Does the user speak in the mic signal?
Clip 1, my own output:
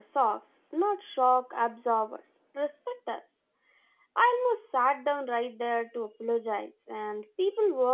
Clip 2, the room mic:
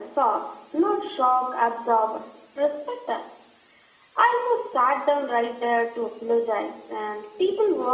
No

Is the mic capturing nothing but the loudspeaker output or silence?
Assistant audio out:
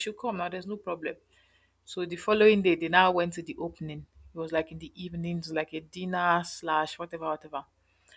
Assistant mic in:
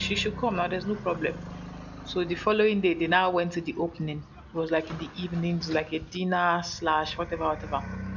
Yes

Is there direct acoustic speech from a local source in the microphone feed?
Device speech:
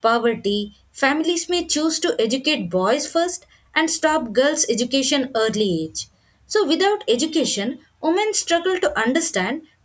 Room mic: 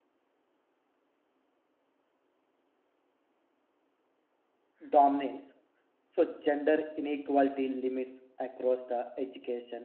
Yes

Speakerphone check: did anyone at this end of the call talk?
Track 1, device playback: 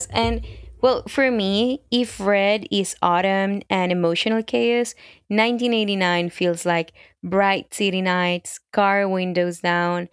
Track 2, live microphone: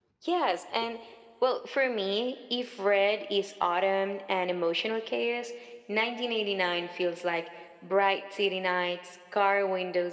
No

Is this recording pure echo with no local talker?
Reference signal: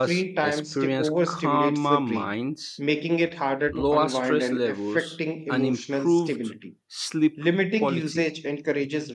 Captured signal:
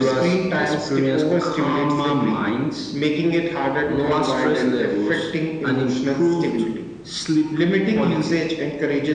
Yes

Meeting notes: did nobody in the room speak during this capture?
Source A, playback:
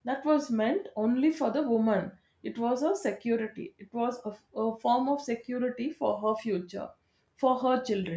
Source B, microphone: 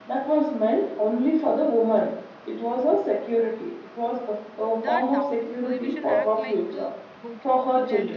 No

